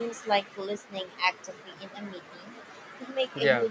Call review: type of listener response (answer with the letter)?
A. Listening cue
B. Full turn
A